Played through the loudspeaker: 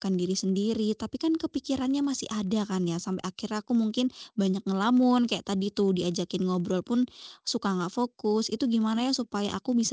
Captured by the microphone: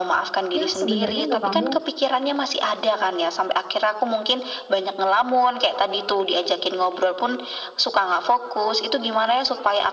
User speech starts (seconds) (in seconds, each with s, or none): 0.6 s